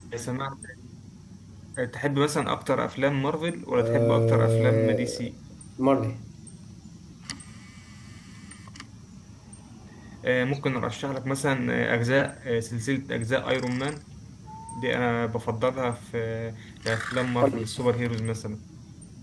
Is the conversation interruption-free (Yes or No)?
No